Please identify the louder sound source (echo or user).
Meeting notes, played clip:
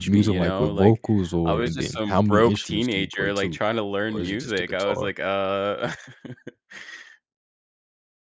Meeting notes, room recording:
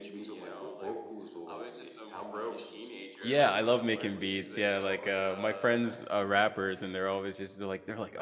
user